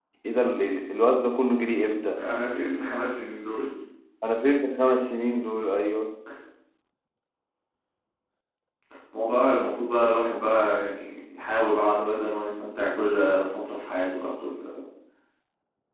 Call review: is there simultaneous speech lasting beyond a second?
No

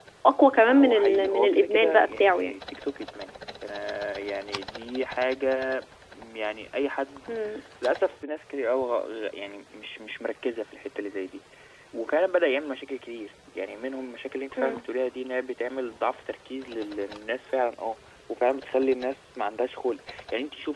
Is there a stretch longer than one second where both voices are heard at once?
Yes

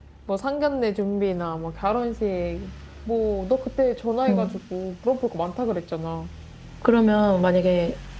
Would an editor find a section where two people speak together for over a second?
No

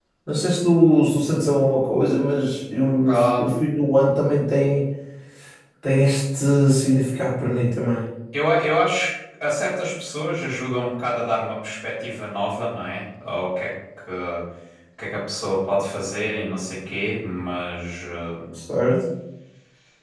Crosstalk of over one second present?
No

